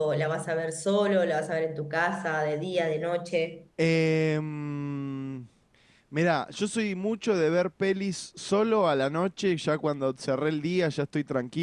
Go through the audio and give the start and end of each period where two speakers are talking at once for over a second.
none

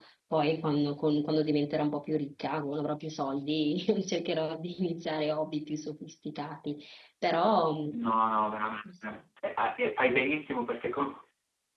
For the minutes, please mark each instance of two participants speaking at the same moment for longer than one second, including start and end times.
none

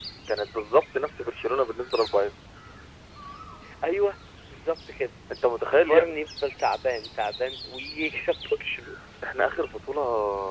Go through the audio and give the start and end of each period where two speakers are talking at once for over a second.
none

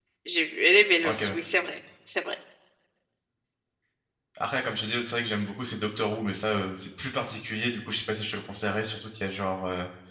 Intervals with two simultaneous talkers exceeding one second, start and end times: none

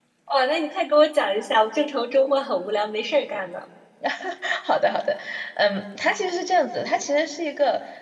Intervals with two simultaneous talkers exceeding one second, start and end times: none

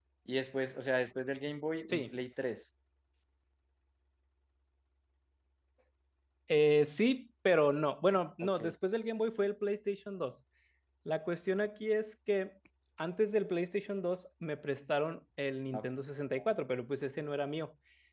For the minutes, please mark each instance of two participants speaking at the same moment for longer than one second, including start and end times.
none

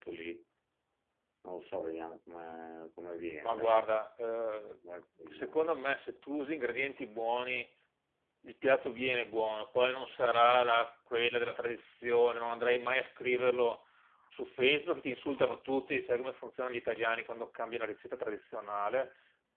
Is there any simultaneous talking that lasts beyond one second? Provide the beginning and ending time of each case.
none

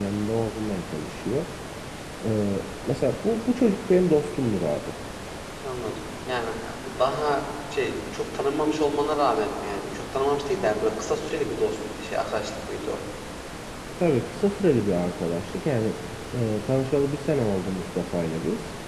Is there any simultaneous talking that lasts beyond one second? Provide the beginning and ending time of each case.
none

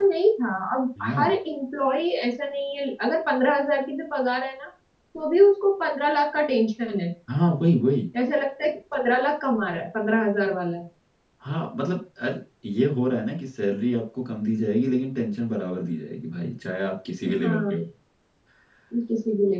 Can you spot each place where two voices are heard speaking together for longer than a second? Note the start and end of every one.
none

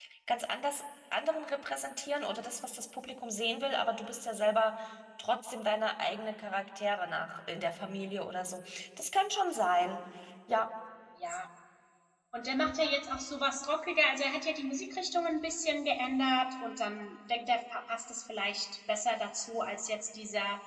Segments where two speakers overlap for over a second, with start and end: none

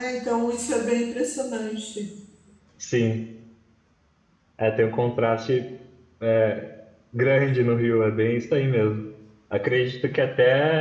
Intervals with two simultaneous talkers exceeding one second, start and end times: none

